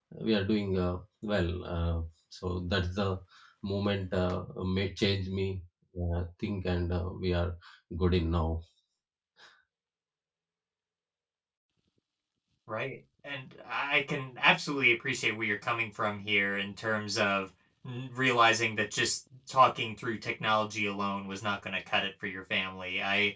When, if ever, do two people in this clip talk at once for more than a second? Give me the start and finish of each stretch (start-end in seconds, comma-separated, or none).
none